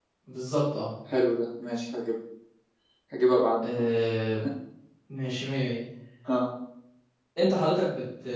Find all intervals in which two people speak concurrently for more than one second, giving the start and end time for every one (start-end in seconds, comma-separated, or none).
none